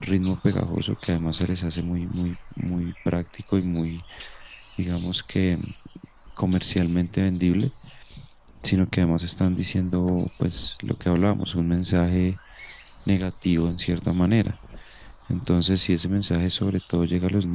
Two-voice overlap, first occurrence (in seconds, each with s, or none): none